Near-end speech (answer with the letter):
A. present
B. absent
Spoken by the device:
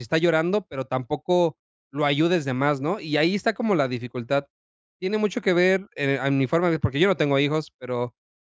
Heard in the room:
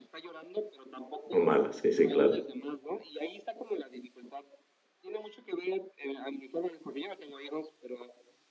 A